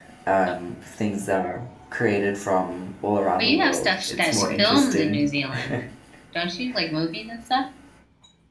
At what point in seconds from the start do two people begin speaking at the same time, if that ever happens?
3.4 s

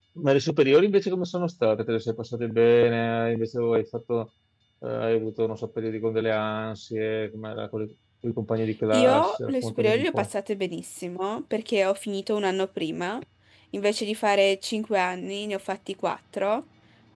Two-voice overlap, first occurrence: 8.9 s

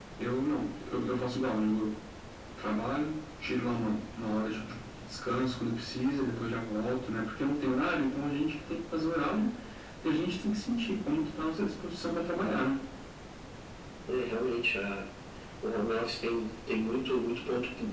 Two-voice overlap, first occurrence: none

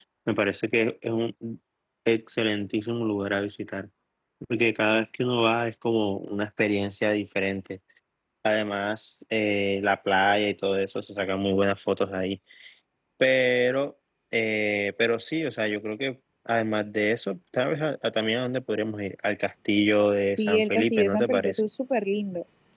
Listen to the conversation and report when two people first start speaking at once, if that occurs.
20.4 s

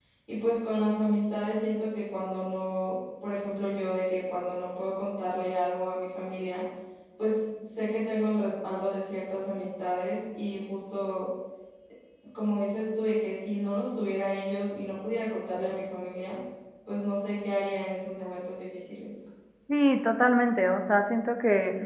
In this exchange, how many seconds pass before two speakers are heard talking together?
none

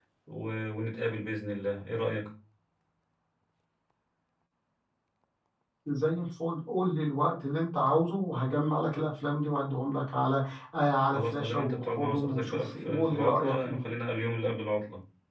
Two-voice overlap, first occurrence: 11.1 s

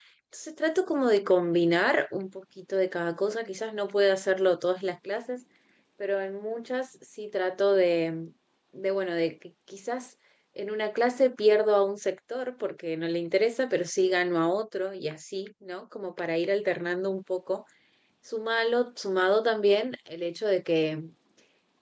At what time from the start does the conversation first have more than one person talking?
none

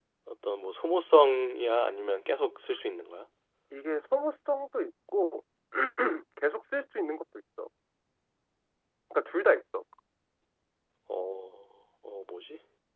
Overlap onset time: none

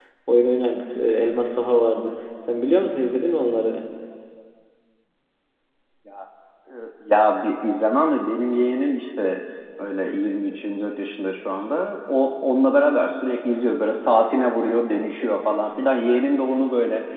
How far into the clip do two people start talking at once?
none

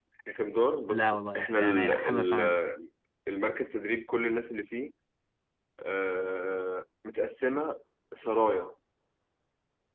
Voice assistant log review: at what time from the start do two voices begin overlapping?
0.9 s

